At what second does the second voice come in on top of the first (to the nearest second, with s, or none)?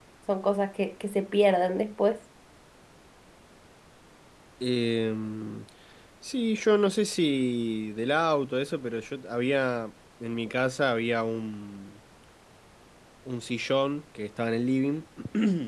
none